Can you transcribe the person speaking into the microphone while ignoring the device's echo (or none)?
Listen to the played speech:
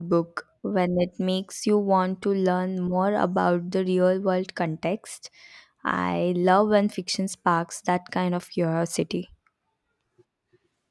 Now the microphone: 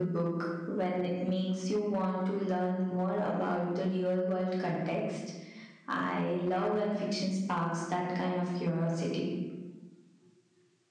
none